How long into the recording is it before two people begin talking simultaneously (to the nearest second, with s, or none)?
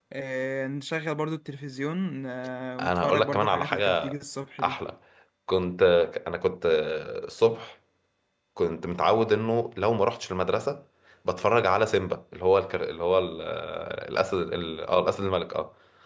3 s